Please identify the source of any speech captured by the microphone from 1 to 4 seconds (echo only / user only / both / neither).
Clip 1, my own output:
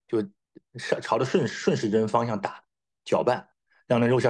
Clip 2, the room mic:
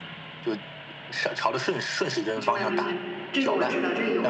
both